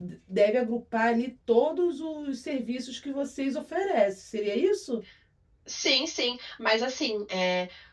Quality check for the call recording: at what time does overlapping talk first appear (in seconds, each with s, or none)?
none